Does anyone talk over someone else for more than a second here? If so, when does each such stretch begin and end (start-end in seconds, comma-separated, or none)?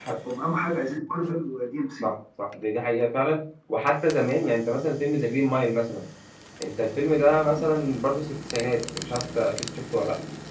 none